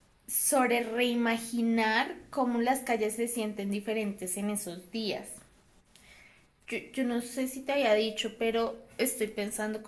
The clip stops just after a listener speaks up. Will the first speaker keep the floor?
Yes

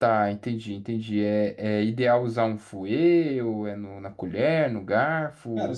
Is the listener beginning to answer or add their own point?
Yes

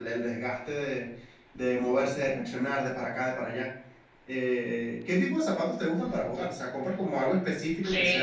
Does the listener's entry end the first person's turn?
Yes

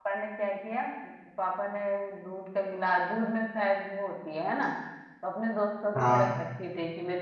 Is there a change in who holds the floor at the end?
No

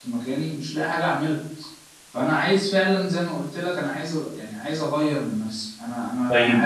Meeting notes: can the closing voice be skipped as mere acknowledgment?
No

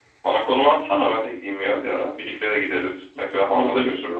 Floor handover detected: Yes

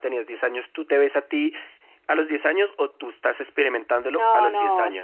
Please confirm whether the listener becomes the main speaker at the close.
Yes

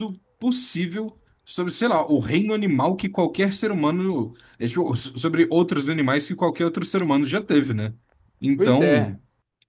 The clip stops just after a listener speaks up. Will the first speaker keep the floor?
Yes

